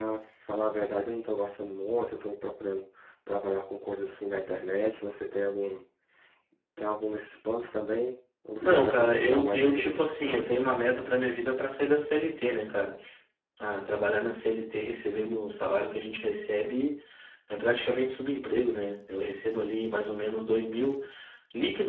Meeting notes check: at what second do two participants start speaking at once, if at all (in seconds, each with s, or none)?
8.6 s